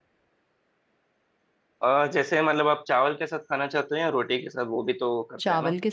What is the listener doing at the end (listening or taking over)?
taking over